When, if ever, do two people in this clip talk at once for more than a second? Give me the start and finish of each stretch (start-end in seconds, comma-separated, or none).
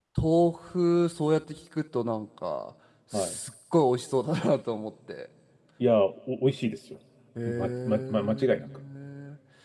7.5-8.7